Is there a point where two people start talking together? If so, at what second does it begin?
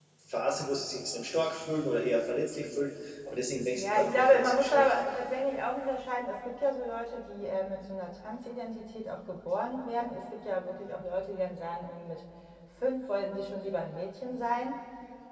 3.7 s

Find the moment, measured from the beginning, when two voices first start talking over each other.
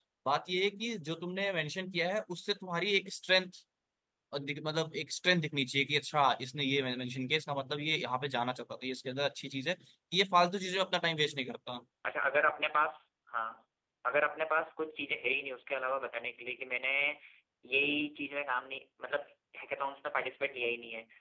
none

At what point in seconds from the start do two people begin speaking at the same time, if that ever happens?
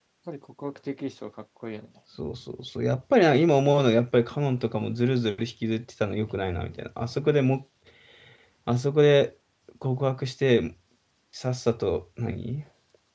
none

